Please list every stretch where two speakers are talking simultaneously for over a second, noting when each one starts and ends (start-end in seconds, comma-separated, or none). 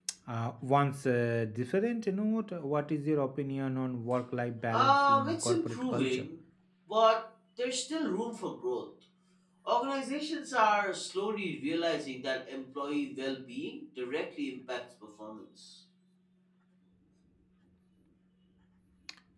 4.7-6.3